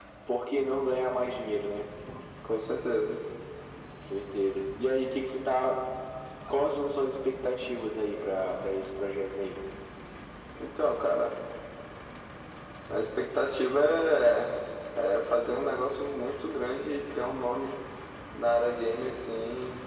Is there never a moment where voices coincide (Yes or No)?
Yes